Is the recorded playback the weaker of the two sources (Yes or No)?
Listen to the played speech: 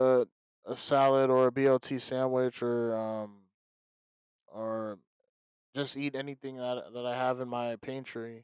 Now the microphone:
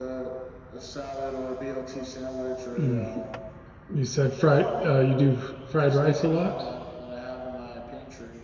Yes